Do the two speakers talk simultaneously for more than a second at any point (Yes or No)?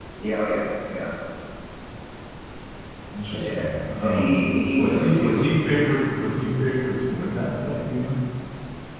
Yes